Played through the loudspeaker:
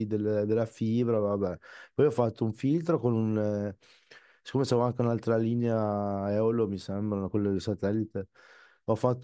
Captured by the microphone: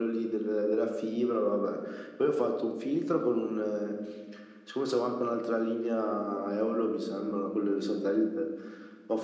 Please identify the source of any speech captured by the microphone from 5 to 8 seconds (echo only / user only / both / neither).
echo only